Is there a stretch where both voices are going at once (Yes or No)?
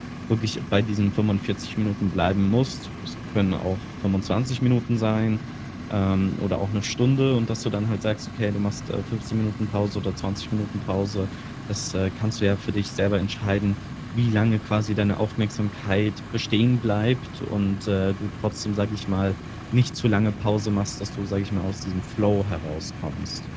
No